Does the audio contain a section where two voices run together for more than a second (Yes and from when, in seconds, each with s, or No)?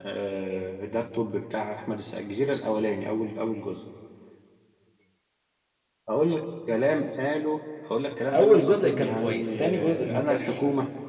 Yes, from 8.3 s